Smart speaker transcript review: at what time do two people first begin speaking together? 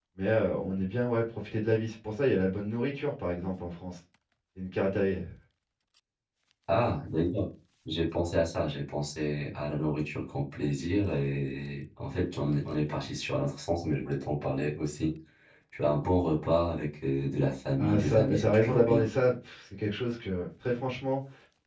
17.8 s

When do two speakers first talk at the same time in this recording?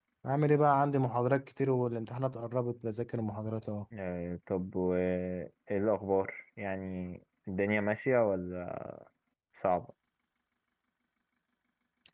none

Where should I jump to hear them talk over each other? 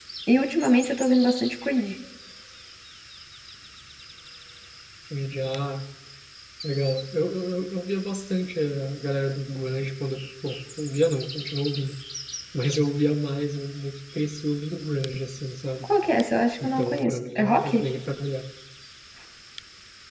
16.6 s

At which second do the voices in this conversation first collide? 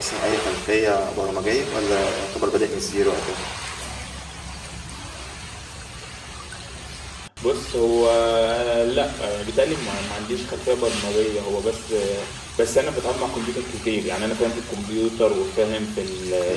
none

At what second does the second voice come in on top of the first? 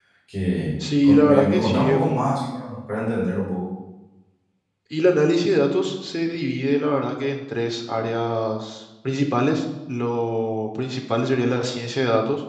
1.0 s

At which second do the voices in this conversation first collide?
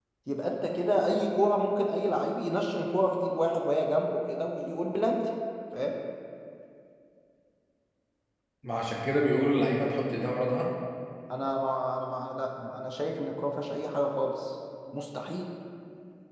none

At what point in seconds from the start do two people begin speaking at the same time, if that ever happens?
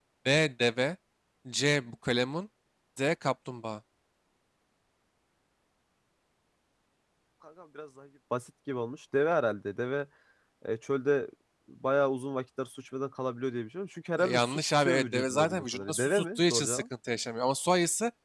14.2 s

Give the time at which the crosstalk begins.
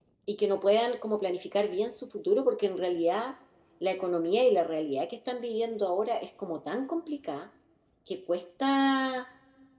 none

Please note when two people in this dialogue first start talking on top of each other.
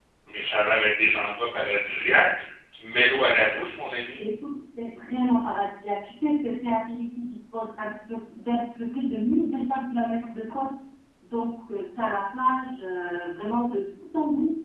none

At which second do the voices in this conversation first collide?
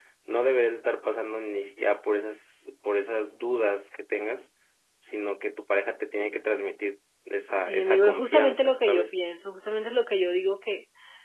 7.7 s

